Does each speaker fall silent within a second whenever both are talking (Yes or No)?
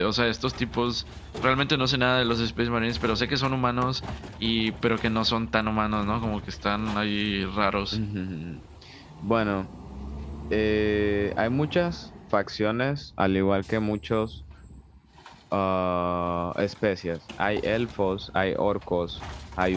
Yes